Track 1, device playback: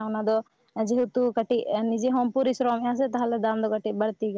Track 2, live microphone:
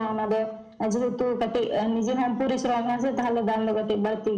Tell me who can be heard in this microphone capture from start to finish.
echo only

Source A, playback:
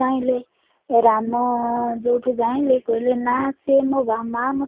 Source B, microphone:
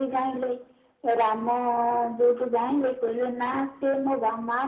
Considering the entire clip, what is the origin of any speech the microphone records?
echo only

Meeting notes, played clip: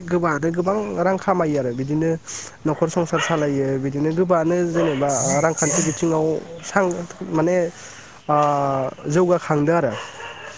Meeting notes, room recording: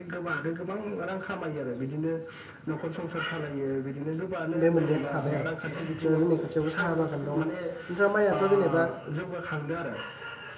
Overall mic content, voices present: both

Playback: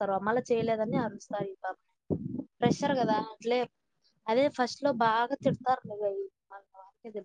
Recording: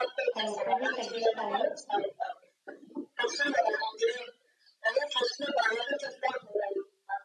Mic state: both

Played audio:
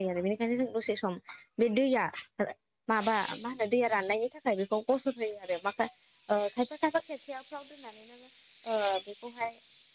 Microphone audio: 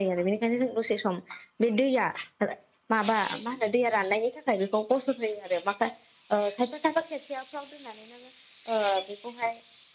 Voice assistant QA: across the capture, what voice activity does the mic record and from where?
echo only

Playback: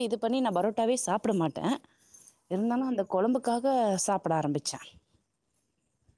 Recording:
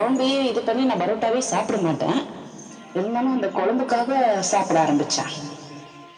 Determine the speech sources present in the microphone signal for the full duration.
echo only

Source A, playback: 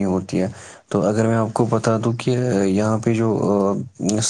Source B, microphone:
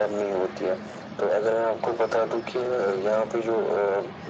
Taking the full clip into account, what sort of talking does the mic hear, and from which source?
echo only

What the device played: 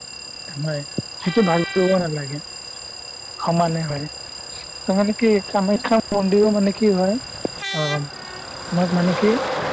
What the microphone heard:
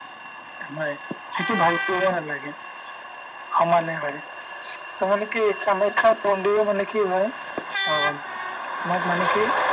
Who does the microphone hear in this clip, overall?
echo only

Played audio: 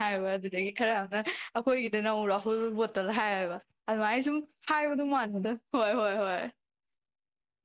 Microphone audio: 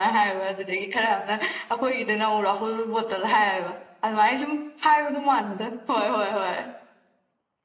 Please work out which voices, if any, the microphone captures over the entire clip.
echo only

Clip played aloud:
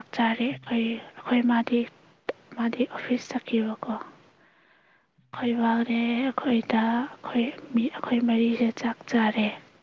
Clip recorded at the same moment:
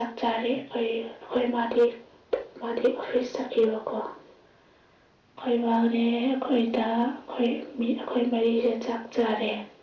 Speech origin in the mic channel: echo only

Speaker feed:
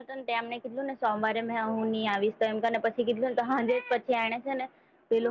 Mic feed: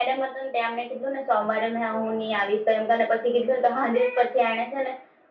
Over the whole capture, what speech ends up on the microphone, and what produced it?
echo only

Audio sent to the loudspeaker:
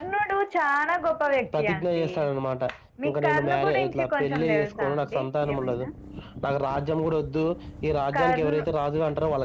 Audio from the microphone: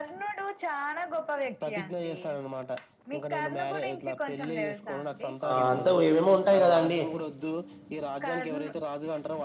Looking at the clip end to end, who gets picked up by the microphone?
both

